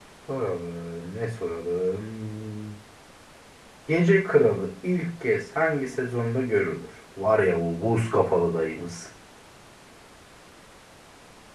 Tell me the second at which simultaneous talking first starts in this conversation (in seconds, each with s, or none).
none